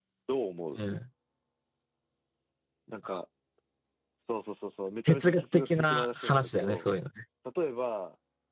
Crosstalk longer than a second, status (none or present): present